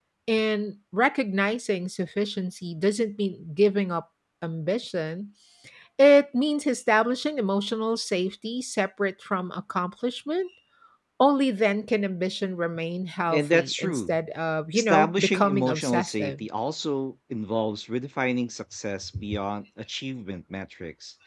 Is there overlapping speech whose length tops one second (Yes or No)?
Yes